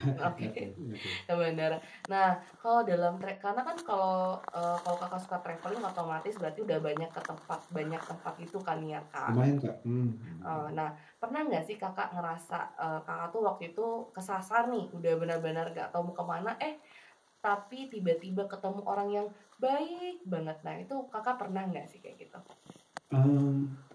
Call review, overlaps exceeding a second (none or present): none